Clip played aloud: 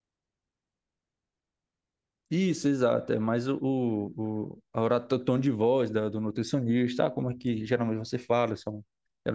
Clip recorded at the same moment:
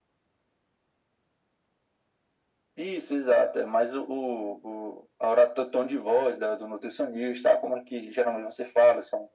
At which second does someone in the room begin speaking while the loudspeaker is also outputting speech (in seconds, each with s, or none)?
none